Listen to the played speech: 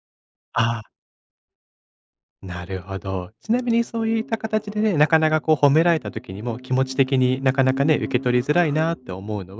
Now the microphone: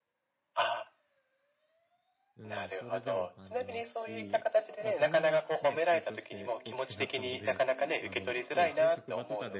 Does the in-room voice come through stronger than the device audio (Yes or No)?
No